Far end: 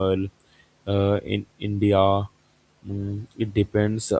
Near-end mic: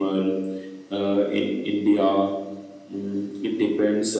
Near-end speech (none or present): none